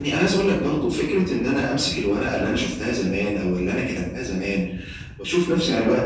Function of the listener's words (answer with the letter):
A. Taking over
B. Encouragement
B